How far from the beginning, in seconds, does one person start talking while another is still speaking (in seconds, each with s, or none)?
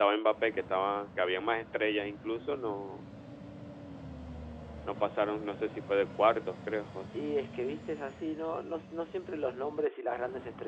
none